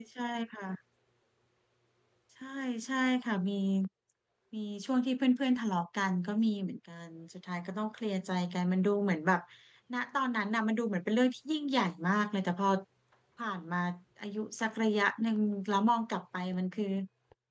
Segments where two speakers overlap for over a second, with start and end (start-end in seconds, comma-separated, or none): none